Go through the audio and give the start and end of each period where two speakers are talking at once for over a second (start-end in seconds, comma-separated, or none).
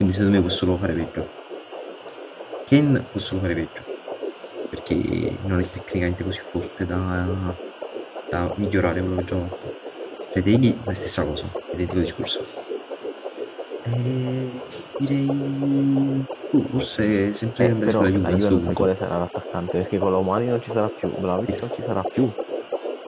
17.6-18.9